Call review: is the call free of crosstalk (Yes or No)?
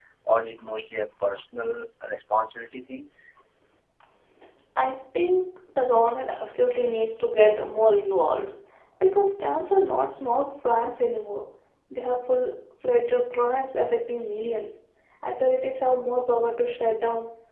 Yes